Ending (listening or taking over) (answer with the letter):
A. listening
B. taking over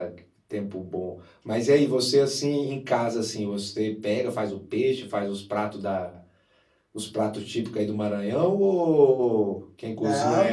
B